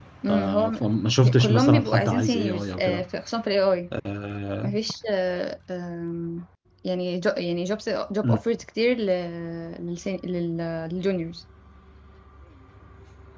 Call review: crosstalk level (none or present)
present